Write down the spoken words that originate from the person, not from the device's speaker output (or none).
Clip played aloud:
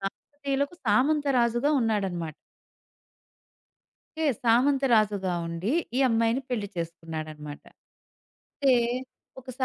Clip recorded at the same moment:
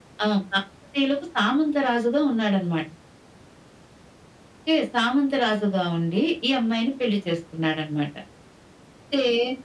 none